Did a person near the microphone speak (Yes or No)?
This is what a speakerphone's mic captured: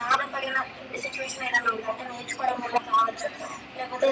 No